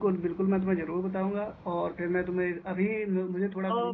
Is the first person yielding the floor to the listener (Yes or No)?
No